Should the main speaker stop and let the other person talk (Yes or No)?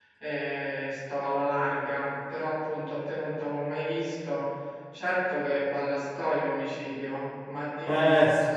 Yes